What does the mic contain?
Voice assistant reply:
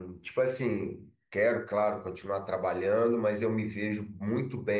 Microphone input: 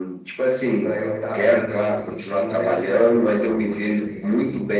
both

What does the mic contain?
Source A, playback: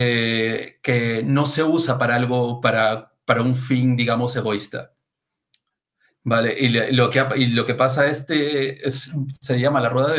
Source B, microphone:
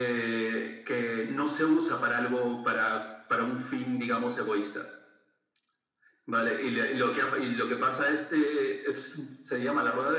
echo only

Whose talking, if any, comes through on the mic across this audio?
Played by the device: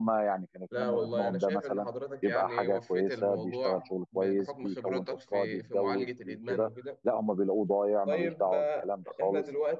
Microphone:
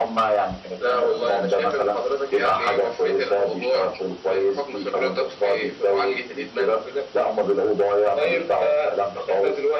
echo only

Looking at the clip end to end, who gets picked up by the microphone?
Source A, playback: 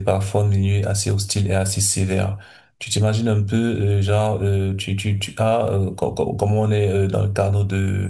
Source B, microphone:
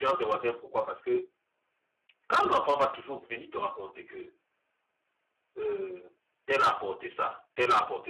user only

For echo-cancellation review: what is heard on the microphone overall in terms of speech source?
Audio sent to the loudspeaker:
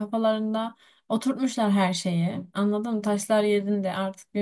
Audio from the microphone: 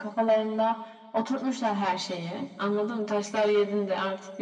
echo only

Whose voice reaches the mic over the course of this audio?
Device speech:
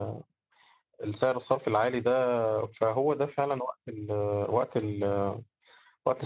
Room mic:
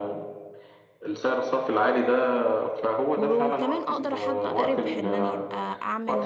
both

